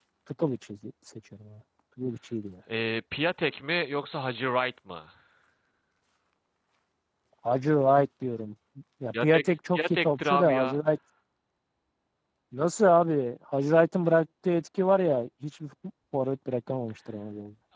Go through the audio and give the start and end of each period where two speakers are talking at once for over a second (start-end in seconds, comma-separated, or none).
9.2-10.8